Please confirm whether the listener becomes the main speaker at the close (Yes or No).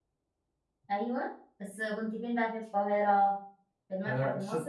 Yes